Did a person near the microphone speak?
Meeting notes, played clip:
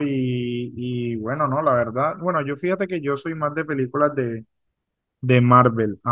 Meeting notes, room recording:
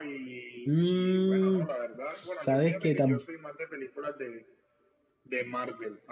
Yes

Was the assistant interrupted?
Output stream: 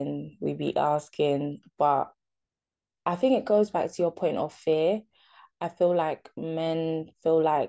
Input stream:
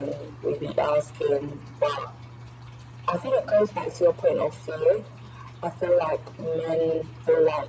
No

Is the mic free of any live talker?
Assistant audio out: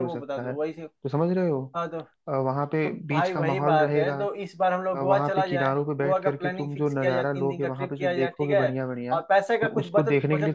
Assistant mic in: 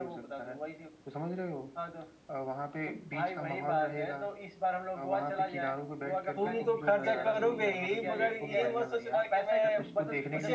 No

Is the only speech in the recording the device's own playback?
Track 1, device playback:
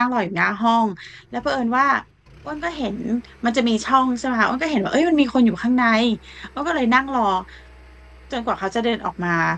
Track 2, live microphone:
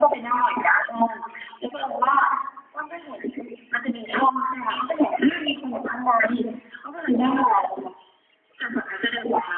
Yes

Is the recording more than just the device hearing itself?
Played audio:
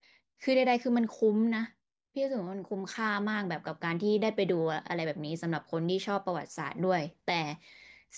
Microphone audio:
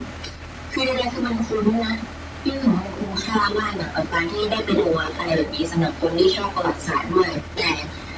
No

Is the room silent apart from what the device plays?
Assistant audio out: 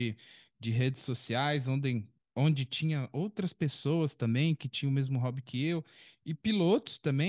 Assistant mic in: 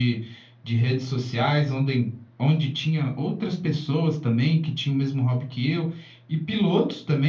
Yes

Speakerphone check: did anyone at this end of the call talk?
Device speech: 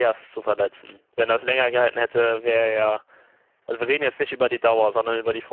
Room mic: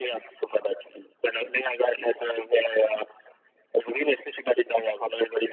No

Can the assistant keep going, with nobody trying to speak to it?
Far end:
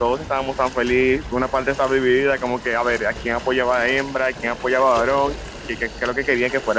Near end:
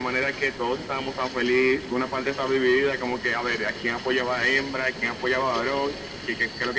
Yes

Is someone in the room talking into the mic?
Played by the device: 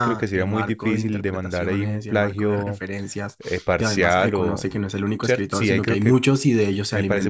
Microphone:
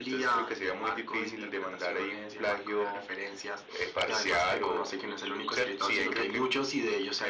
No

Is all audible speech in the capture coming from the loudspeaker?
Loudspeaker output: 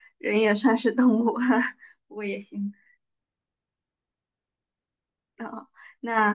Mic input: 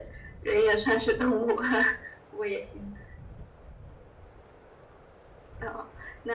Yes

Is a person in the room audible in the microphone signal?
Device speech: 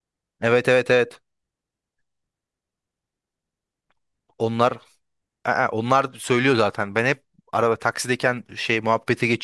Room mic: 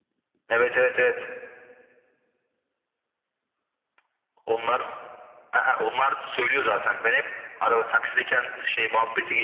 No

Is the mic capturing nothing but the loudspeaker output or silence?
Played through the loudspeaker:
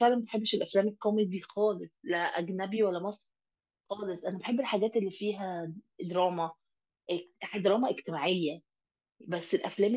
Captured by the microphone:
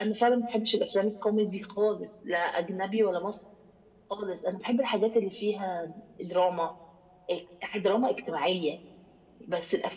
Yes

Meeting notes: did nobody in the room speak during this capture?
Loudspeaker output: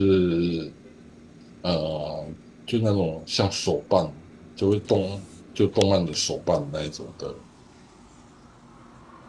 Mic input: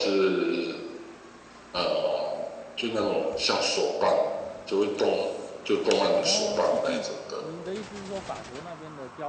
No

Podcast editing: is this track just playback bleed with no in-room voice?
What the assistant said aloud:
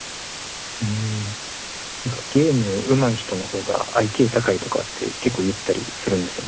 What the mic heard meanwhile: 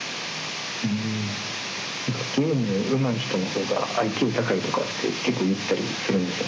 Yes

